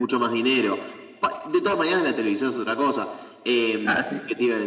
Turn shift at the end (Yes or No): No